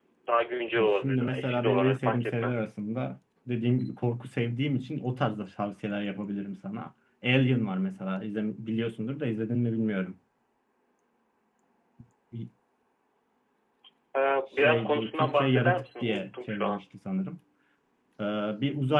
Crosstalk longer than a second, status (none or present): present